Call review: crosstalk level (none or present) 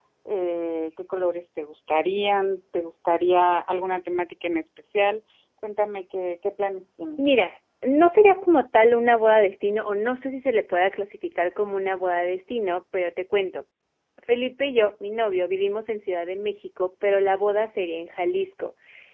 none